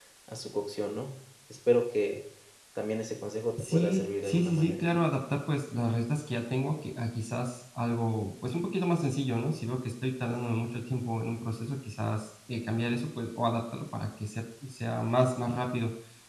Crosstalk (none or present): present